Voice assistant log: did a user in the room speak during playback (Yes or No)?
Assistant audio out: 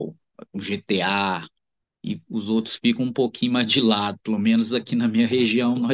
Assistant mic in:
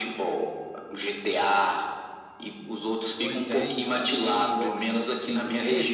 Yes